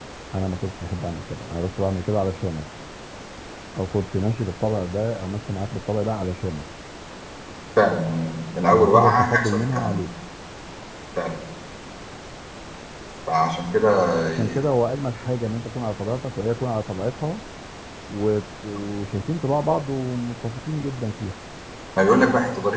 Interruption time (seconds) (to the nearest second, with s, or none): 9 s